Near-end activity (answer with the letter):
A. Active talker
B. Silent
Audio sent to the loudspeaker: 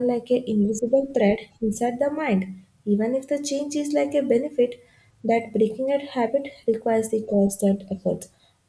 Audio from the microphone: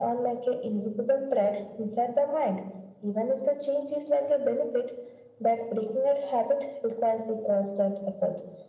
B